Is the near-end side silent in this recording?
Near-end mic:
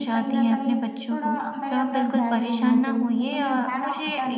No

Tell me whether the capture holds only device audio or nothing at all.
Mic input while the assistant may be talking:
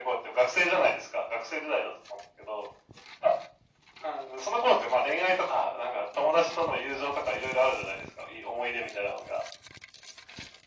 Yes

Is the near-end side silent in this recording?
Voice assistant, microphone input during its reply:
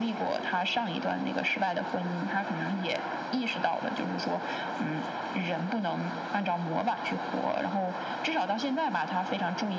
Yes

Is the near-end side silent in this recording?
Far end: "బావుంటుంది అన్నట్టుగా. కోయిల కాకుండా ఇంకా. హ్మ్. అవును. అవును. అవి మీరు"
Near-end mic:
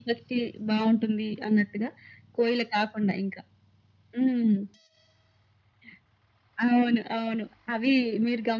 Yes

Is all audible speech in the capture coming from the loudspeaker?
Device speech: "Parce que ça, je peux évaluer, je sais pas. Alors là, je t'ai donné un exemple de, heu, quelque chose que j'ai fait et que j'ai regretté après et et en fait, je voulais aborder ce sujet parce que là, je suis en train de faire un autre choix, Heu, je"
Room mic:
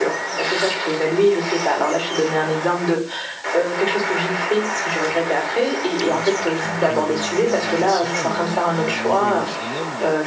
No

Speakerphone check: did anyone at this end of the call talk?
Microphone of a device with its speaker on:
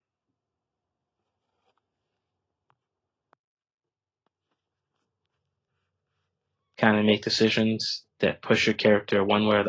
Yes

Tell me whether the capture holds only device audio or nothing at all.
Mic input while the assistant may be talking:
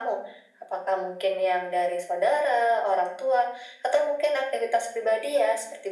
Yes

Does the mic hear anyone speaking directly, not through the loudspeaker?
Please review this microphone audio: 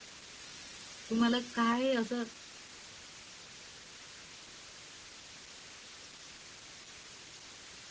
Yes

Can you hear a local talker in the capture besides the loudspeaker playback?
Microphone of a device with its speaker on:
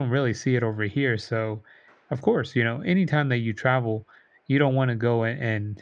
Yes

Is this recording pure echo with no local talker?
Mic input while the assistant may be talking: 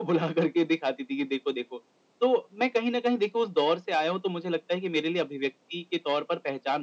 Yes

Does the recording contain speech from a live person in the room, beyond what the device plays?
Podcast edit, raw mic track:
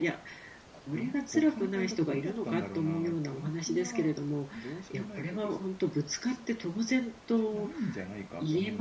No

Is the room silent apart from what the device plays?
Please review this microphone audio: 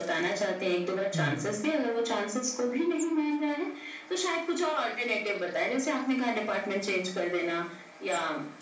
No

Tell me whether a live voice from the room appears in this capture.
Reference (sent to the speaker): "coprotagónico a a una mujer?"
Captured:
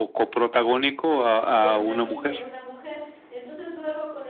Yes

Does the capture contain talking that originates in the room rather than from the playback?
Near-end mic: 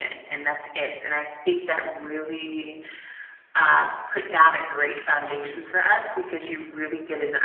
No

